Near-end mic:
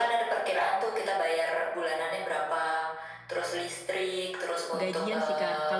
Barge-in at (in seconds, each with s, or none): 4.8 s